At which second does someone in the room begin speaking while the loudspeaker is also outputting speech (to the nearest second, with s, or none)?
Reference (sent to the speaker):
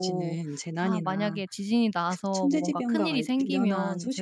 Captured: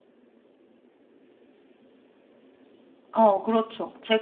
3 s